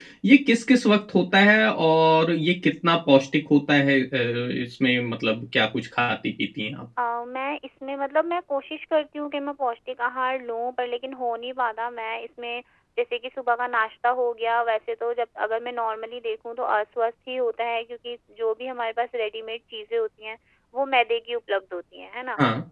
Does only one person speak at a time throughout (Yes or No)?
Yes